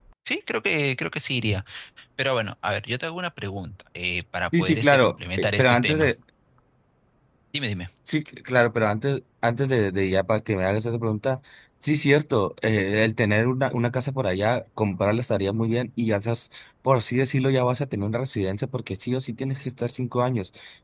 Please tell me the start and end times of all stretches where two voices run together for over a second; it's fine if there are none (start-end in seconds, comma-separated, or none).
4.6-6.1